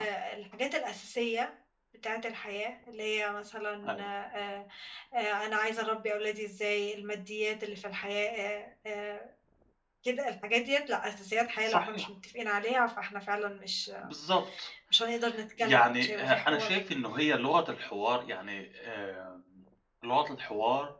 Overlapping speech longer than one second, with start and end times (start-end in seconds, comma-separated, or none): 15.6-16.8